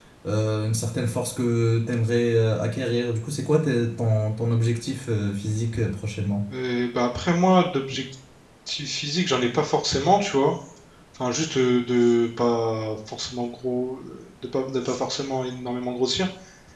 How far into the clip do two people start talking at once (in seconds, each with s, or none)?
none